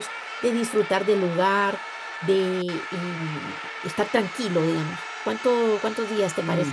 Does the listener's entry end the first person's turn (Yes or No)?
Yes